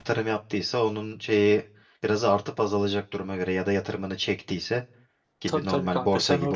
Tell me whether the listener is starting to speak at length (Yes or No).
Yes